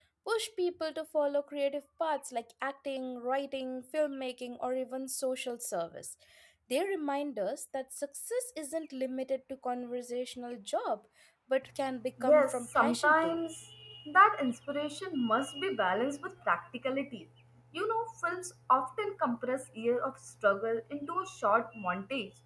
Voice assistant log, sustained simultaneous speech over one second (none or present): present